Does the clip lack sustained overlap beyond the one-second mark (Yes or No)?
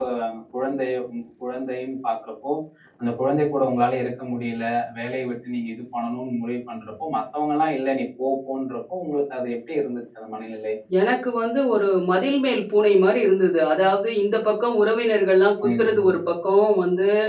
Yes